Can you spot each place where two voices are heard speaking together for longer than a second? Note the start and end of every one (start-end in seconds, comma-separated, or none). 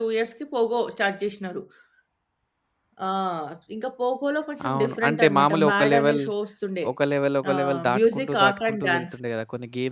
4.7-6.2, 7.5-9.2